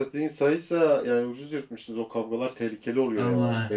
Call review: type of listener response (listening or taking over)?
taking over